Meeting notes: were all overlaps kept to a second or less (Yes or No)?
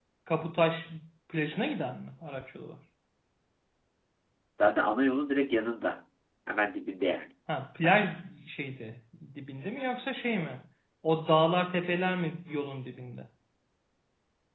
Yes